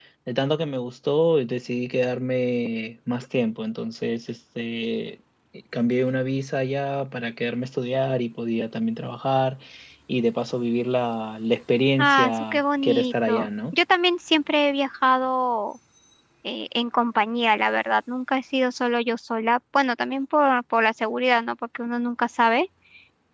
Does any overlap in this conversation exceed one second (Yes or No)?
Yes